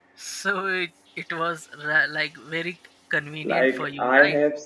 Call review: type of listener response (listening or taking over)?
taking over